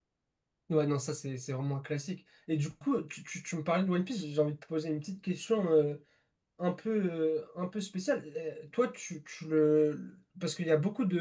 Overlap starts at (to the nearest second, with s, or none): none